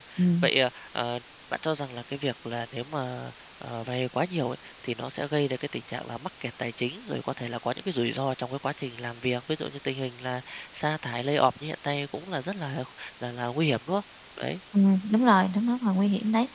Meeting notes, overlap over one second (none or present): none